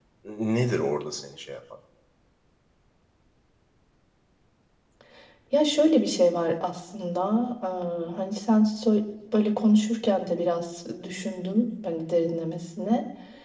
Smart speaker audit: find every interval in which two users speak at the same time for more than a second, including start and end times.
none

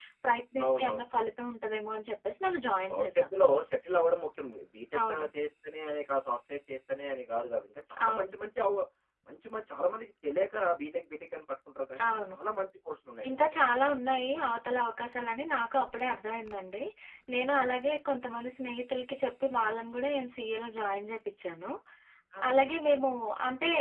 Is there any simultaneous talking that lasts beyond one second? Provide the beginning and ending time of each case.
none

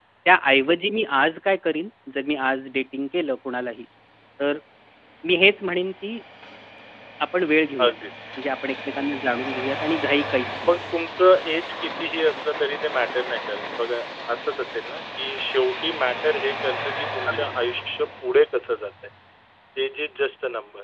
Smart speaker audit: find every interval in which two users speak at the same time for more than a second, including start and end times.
none

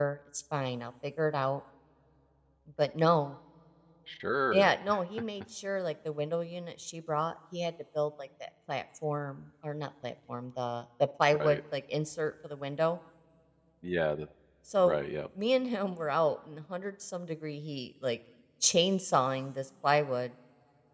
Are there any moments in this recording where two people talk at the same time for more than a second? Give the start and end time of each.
none

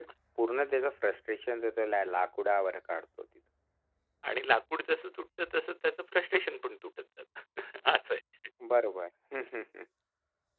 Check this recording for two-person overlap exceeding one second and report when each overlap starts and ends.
none

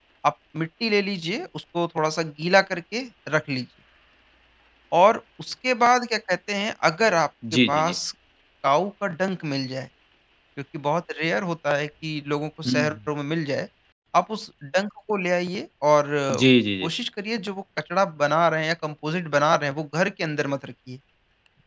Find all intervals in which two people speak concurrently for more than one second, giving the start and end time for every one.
none

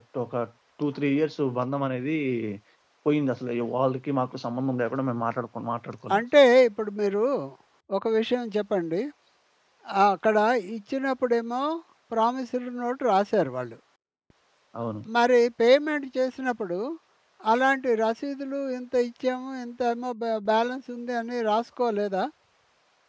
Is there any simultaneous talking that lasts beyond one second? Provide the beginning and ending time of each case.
none

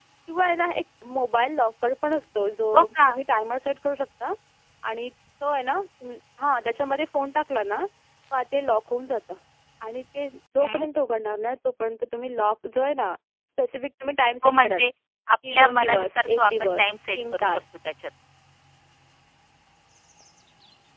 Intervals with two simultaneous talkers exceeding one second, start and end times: 15.5-17.6

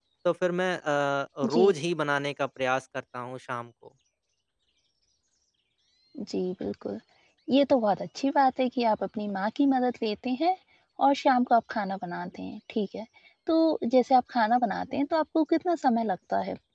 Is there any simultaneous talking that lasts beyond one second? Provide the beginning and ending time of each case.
none

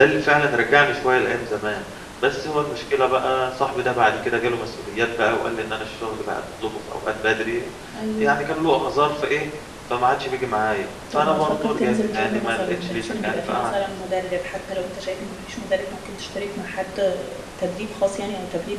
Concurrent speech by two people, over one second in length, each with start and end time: 11.2-13.7

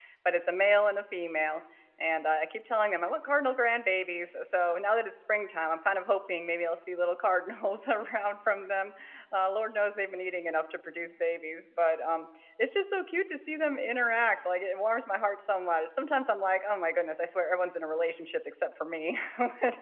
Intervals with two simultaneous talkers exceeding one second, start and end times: none

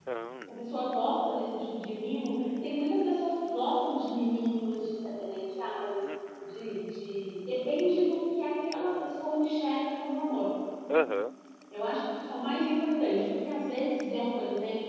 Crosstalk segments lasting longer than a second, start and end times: none

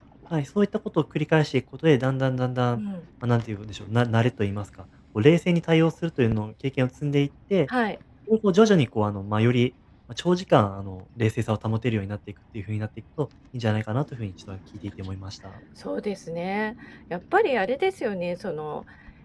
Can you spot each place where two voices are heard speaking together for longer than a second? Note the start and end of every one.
none

